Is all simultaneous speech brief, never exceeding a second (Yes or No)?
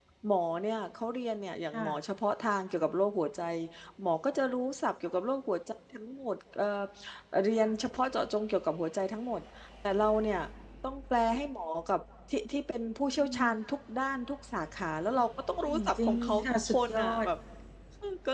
No